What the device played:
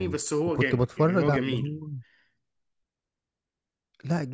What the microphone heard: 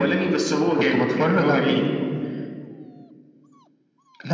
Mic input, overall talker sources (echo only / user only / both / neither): echo only